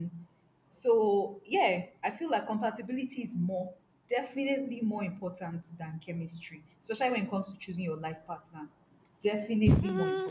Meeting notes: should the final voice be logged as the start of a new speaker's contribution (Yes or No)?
Yes